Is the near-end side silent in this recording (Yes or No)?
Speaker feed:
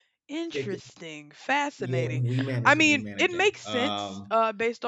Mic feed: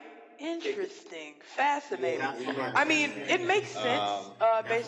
No